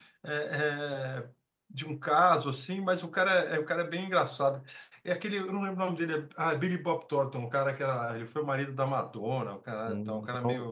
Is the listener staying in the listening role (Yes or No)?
No